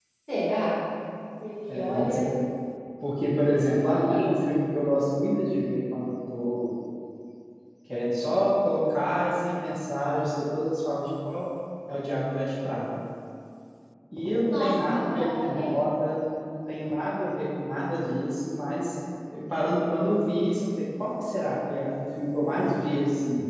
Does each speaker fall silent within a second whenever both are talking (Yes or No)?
No